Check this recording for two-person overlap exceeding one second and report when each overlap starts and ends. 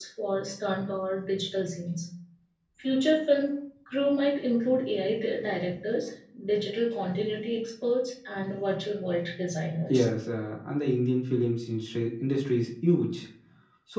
none

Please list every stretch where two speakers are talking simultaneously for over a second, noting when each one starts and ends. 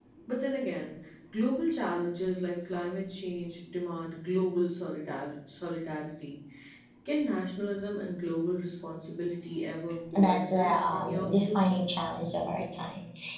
10.1-11.6

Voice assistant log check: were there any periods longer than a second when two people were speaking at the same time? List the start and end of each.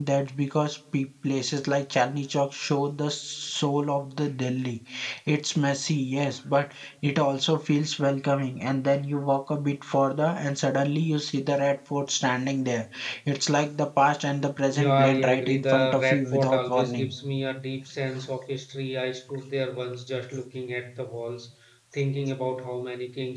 14.7-17.1

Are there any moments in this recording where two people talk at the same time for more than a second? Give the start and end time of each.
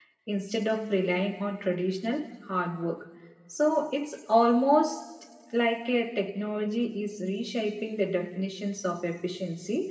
none

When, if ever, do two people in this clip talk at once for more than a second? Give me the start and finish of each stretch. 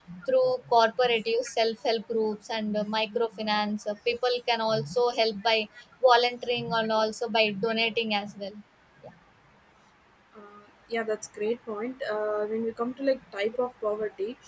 none

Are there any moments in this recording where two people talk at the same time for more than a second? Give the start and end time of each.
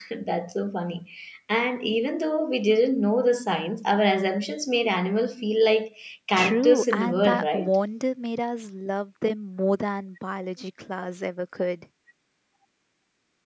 6.4-7.7

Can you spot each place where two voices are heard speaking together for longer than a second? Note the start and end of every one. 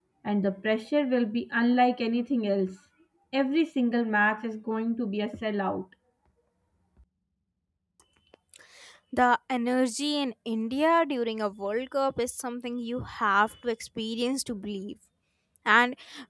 none

